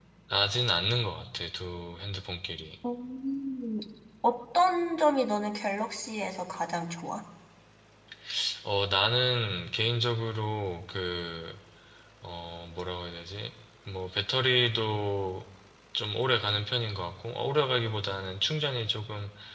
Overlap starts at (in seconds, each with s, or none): none